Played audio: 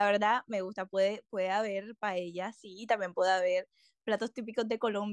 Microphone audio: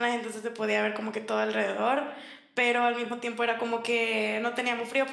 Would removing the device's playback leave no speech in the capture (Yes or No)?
No